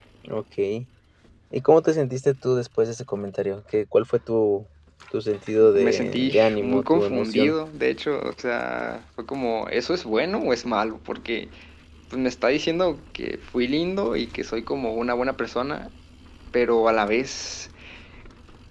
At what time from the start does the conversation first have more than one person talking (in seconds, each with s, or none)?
5.6 s